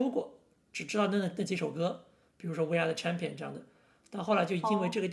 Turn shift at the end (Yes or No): No